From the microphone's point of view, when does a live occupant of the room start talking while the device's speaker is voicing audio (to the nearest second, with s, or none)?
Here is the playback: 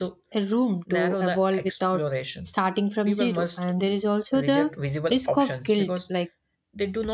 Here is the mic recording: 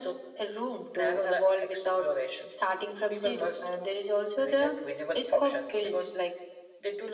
none